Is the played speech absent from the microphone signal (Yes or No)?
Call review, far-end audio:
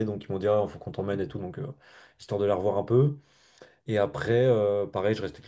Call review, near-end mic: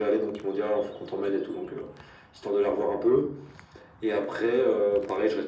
No